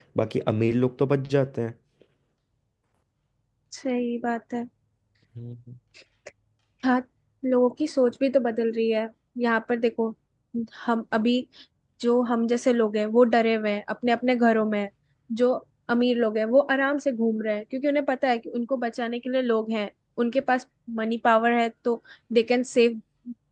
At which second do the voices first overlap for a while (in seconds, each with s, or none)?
none